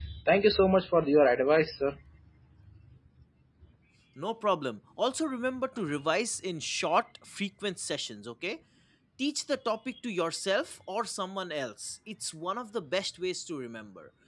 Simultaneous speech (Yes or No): No